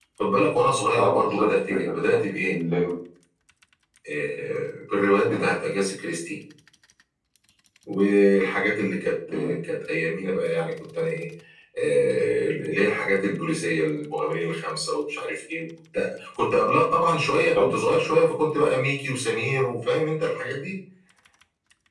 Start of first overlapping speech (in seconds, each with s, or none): 1.0 s